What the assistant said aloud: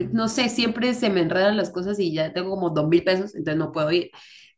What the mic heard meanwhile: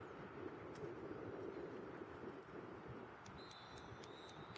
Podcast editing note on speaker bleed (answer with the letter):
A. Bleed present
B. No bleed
B